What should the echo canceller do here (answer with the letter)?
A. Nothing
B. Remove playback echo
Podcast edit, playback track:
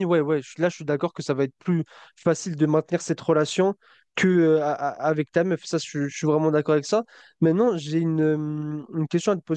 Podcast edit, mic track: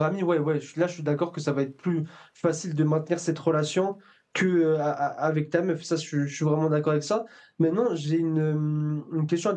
B